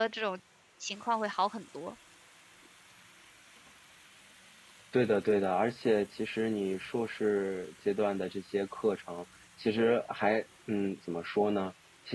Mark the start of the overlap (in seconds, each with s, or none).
none